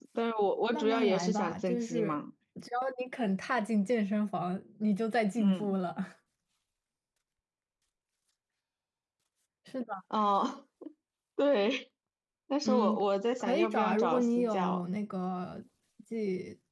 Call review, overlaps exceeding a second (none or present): present